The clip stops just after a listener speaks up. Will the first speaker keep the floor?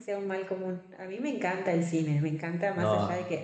Yes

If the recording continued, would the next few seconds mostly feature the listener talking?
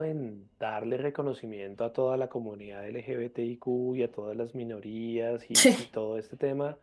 No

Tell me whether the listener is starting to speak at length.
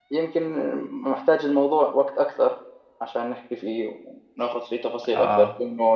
No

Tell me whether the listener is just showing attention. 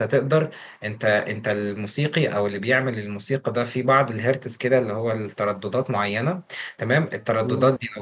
Yes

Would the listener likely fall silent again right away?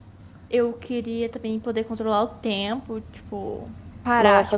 No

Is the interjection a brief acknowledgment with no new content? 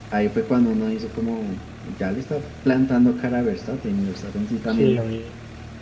No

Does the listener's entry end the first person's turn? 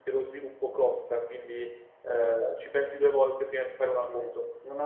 Yes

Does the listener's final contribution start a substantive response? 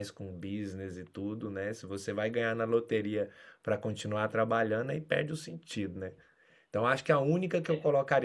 No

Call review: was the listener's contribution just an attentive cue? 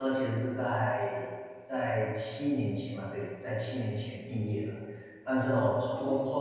Yes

